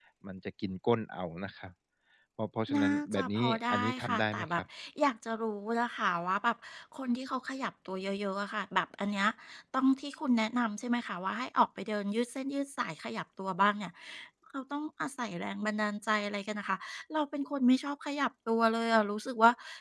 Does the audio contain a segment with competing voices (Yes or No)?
Yes